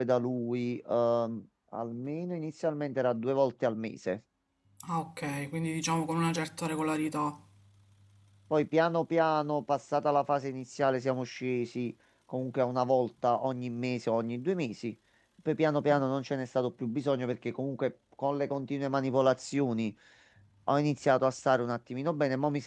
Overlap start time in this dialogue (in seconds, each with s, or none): none